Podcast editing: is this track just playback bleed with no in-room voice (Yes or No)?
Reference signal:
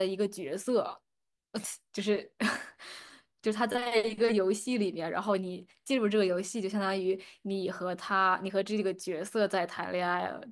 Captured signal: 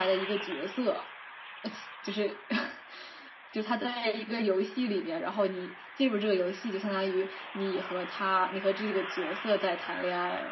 Yes